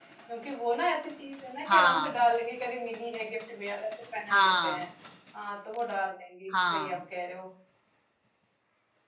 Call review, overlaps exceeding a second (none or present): none